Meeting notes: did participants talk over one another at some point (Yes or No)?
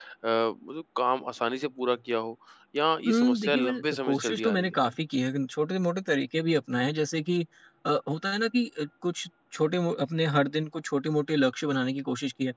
Yes